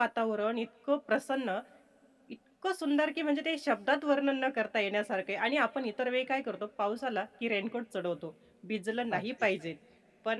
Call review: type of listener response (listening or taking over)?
listening